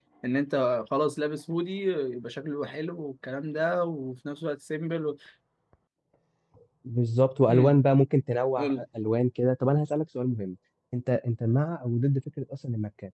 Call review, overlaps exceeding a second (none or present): none